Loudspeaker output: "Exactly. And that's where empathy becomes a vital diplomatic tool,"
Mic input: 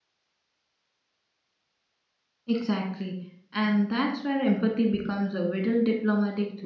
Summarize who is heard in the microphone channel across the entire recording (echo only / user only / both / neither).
echo only